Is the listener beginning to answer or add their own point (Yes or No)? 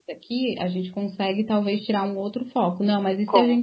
No